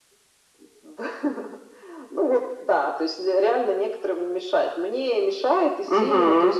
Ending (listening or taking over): listening